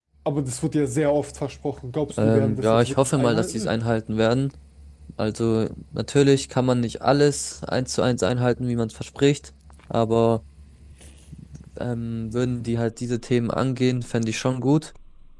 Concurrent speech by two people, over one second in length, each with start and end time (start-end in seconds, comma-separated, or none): 2.2-3.8